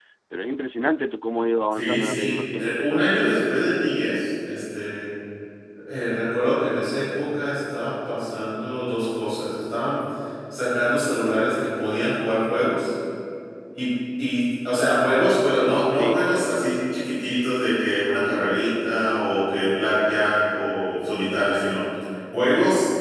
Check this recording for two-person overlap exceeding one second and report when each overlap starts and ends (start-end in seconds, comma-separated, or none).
1.7-3.2